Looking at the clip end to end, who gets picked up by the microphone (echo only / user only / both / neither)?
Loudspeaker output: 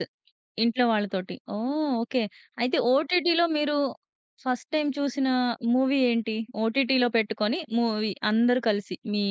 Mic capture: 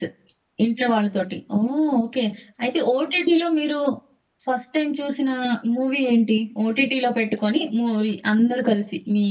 echo only